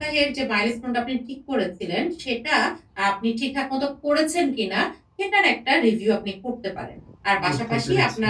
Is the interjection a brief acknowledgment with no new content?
Yes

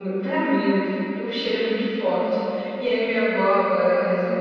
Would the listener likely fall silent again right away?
Yes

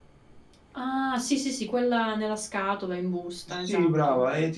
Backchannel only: No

